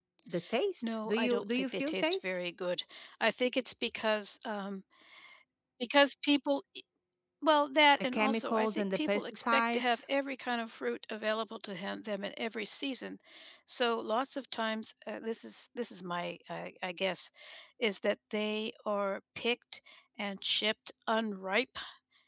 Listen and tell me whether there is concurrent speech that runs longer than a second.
Yes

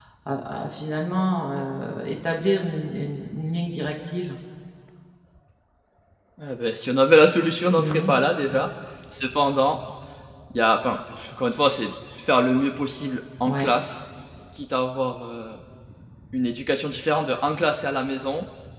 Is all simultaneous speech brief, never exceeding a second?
Yes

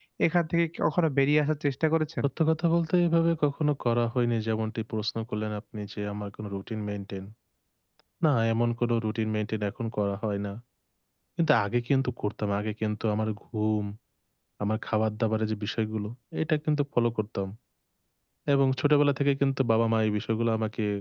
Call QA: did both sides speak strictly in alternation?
Yes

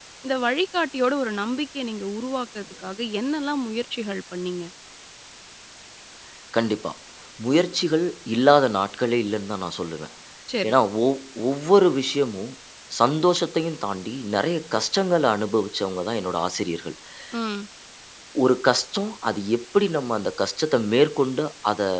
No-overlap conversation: Yes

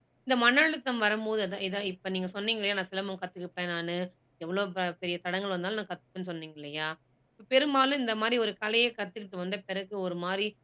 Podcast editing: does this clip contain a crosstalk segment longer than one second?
No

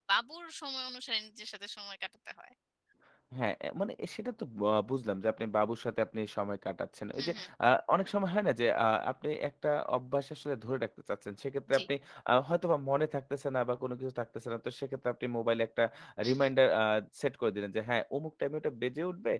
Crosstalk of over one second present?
No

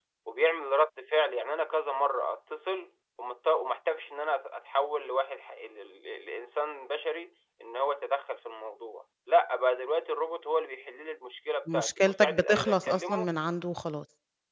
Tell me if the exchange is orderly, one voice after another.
No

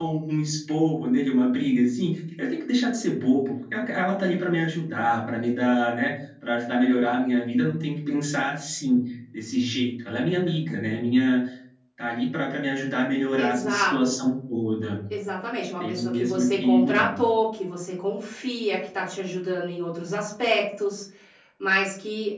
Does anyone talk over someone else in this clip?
Yes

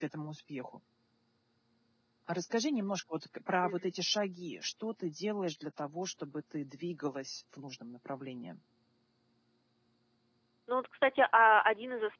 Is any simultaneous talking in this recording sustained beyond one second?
No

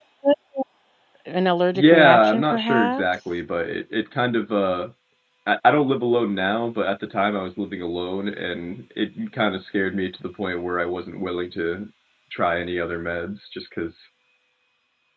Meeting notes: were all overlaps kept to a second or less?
No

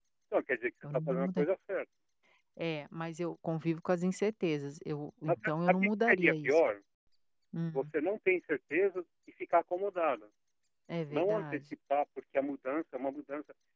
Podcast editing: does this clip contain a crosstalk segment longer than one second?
Yes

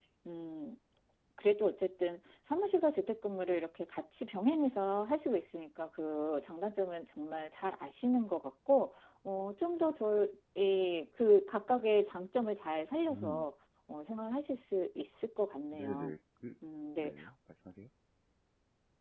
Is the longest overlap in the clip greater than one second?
No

